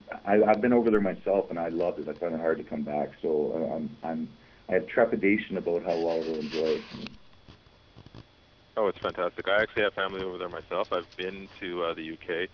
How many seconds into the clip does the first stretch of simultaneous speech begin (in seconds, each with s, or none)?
none